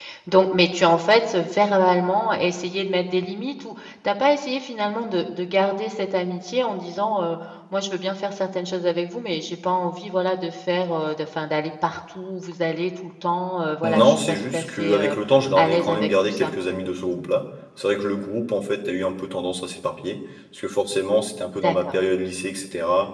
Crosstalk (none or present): present